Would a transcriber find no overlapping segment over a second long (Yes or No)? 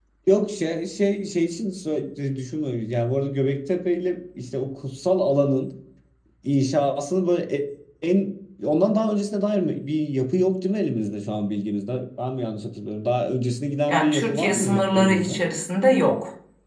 No